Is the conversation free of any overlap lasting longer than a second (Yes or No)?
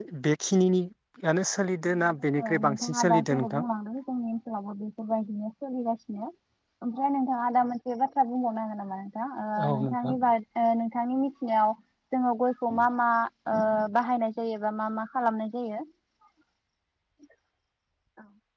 No